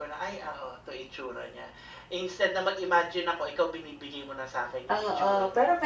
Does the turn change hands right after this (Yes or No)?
Yes